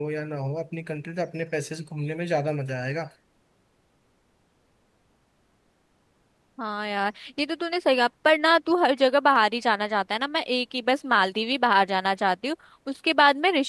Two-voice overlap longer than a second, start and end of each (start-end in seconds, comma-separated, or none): none